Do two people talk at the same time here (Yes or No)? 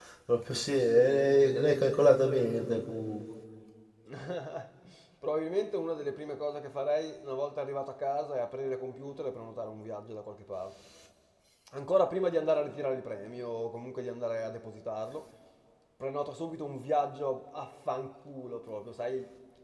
No